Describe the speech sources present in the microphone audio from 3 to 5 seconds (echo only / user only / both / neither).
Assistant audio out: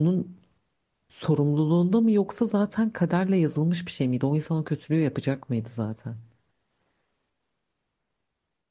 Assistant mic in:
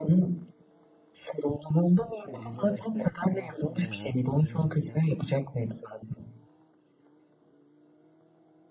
both